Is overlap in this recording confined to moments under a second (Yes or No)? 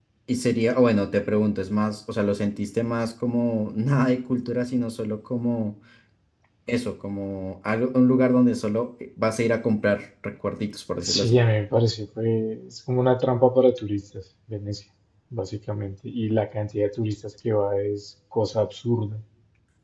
Yes